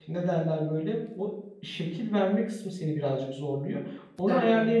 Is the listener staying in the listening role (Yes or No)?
Yes